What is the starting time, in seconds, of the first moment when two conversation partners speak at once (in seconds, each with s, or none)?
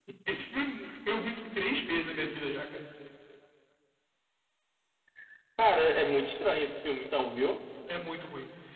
none